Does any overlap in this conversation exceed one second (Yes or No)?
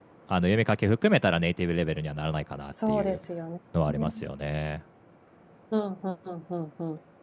No